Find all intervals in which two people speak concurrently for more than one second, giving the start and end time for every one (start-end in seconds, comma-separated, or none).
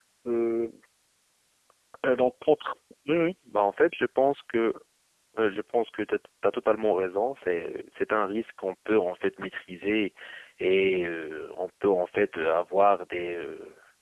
none